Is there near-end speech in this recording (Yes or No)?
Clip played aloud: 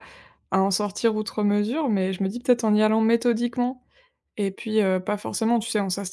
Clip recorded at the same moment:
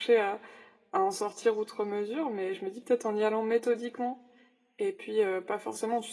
No